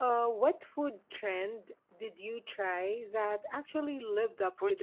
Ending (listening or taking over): taking over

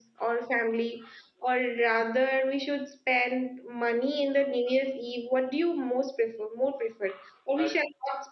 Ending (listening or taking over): listening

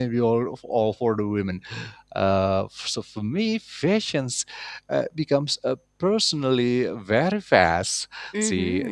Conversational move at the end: taking over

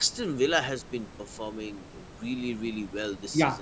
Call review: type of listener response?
taking over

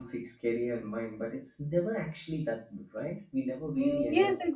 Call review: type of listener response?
taking over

